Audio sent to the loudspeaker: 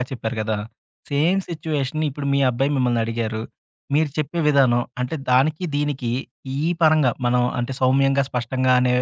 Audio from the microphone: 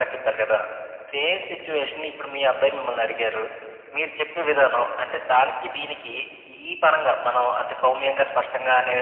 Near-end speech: none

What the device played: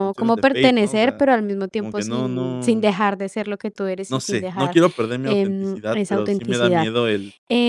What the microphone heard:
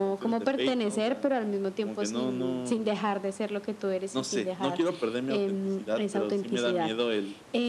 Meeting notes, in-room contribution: none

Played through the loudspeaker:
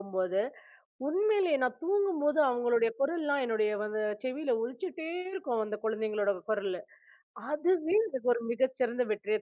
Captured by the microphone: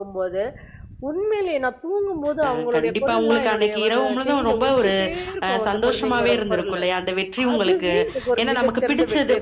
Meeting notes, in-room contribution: present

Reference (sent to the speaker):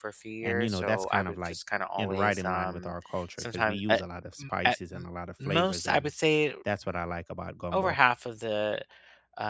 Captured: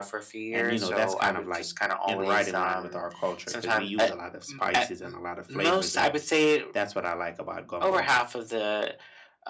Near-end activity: none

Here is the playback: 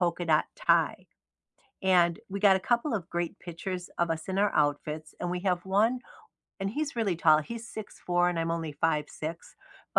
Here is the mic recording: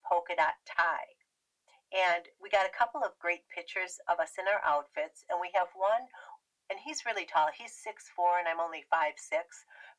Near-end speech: none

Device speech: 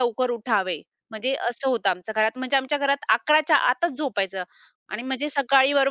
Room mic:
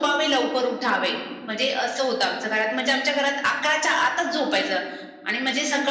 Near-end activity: none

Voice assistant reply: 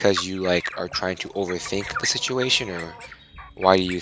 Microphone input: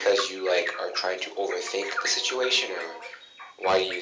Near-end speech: none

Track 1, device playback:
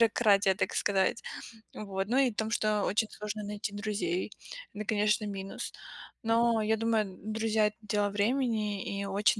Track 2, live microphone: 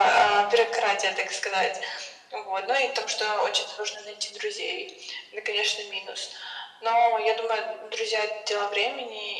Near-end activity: none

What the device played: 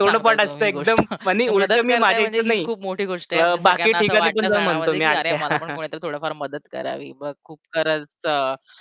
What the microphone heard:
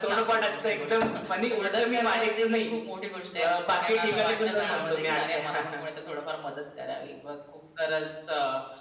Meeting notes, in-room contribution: none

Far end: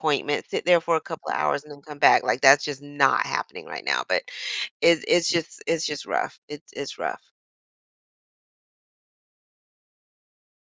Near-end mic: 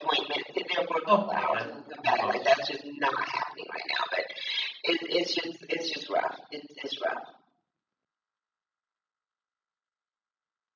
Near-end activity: present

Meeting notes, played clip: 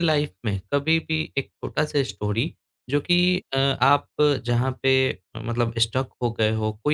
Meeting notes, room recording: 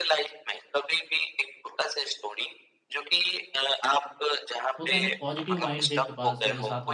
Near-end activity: present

